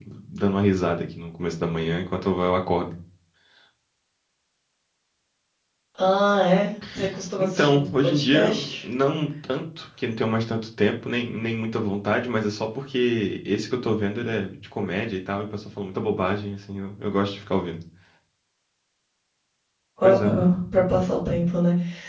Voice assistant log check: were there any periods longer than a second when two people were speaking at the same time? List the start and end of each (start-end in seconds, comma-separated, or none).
7.4-8.7